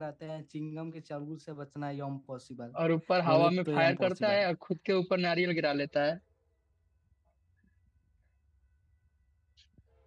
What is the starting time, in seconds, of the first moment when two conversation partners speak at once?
3.2 s

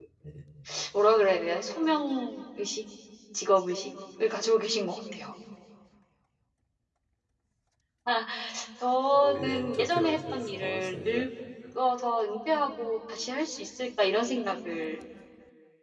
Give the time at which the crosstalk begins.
9.1 s

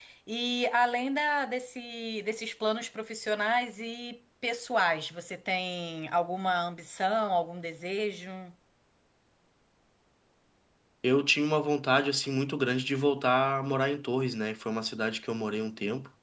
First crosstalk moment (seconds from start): none

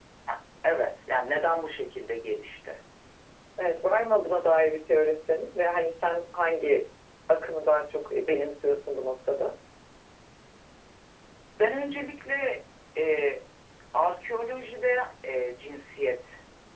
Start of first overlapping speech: none

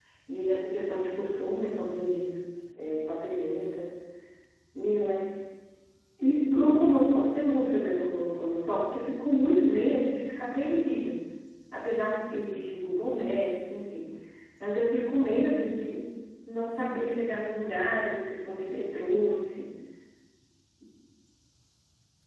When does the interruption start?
none

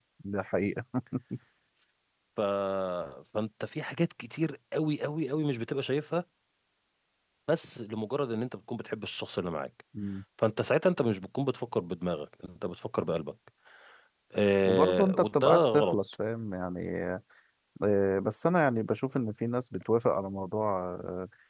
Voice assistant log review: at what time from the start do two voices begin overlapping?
14.7 s

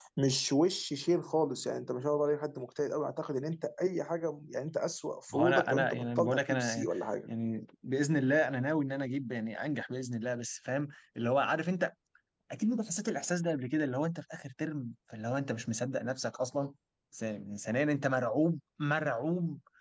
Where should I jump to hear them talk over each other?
5.3 s

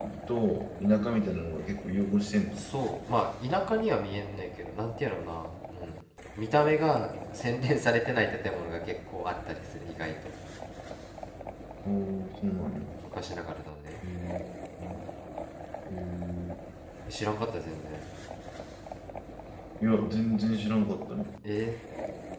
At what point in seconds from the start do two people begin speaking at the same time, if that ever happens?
none

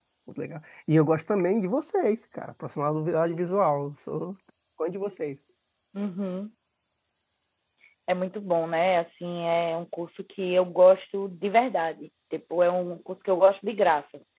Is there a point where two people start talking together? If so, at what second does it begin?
none

